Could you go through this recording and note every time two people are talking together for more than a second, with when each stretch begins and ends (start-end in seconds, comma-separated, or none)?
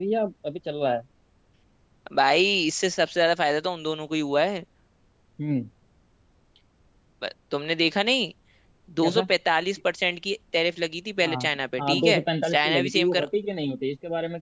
11.8-13.3